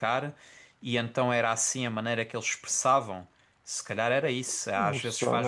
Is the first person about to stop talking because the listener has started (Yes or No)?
Yes